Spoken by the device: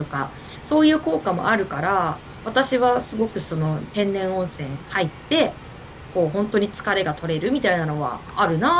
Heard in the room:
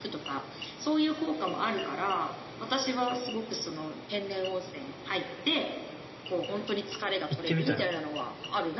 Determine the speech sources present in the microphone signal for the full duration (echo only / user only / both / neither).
both